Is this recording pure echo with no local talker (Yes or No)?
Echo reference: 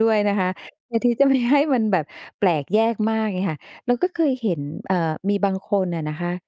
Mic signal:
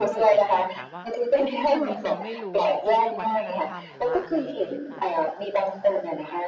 No